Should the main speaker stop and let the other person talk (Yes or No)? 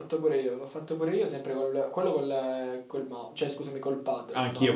Yes